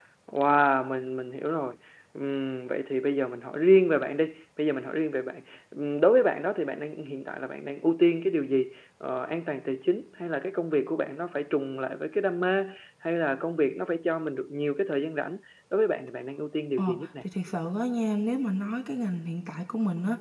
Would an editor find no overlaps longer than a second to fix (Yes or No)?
Yes